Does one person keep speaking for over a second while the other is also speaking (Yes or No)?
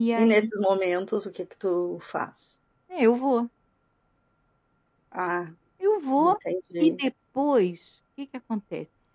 No